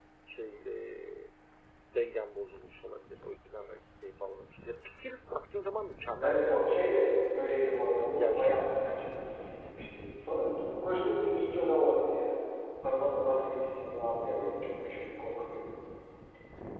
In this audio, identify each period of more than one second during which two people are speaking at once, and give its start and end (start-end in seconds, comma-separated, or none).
none